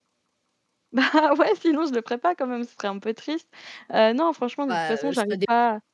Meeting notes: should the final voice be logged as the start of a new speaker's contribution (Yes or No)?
Yes